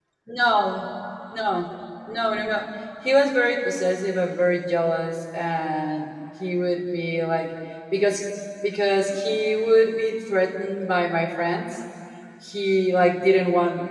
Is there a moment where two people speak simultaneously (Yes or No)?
No